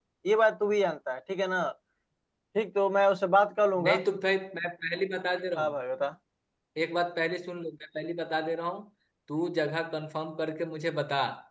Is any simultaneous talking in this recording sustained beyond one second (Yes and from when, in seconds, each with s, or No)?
No